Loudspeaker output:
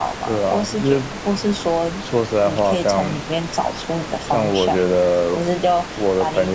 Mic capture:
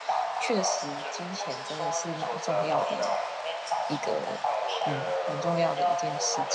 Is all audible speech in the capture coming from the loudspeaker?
No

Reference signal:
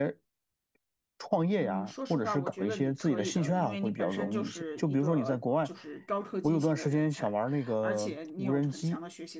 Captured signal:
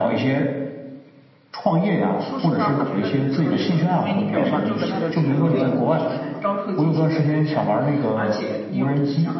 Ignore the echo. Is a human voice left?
Yes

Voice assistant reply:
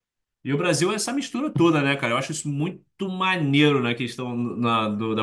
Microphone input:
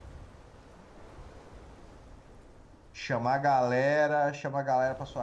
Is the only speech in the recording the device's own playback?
No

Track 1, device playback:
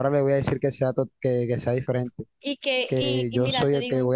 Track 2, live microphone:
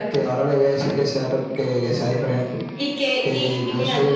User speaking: No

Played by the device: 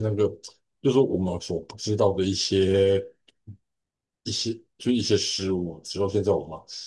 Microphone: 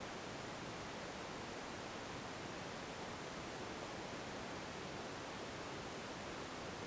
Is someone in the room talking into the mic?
No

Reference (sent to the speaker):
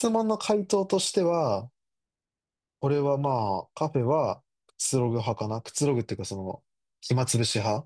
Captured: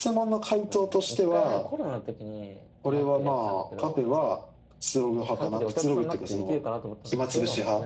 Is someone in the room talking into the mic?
Yes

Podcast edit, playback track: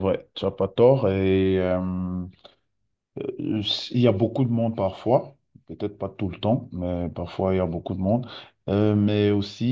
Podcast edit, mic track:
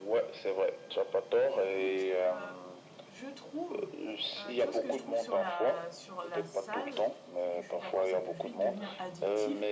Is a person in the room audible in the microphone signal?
Yes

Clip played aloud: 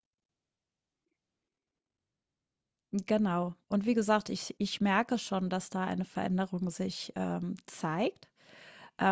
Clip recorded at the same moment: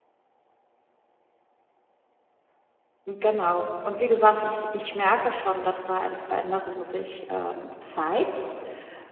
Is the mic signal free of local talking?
Yes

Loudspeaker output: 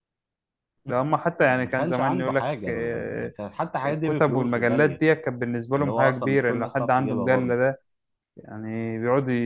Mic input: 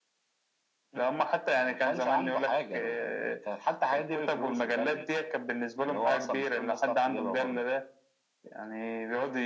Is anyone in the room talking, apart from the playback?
No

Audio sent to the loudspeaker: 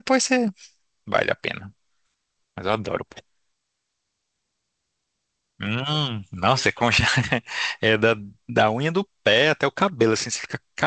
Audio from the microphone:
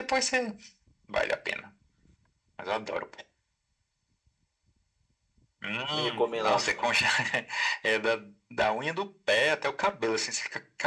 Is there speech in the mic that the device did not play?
Yes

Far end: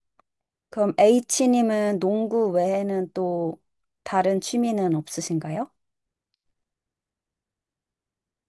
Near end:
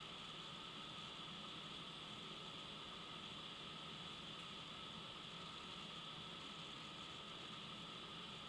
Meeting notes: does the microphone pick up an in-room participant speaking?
No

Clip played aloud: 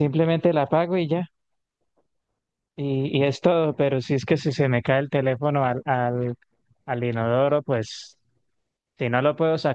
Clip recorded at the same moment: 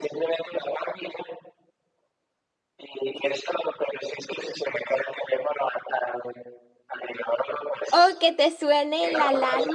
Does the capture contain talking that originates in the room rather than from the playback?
Yes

